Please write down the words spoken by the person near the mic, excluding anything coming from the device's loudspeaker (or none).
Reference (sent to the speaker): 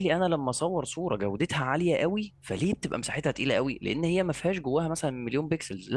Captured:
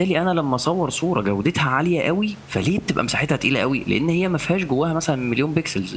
none